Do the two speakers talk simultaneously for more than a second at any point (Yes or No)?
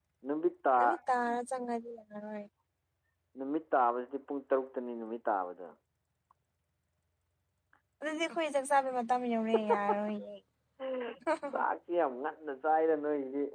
No